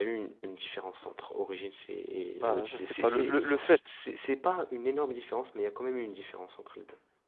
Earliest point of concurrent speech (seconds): 2.4 s

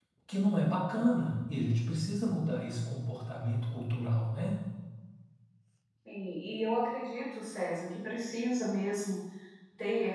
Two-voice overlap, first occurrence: none

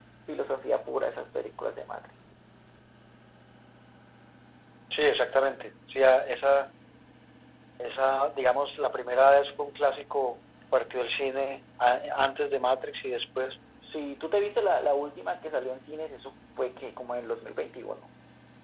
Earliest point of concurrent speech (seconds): none

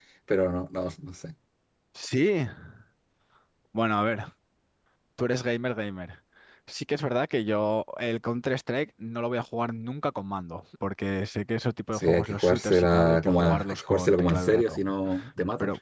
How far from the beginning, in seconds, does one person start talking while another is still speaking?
11.9 s

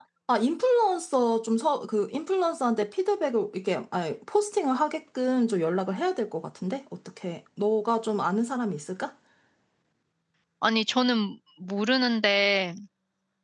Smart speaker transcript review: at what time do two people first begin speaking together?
none

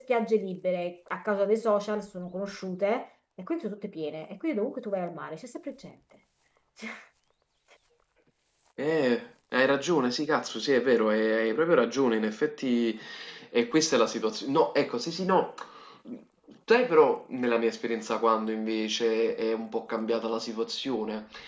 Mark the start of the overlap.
none

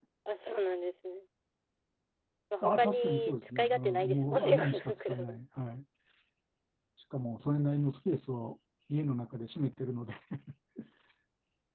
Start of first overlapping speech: 2.6 s

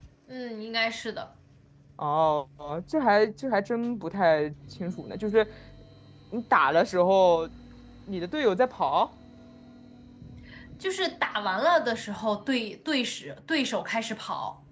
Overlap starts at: none

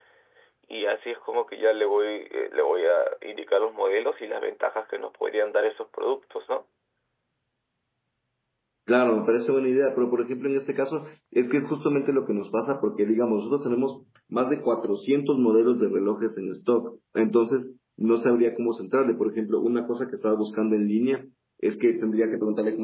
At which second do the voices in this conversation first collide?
none

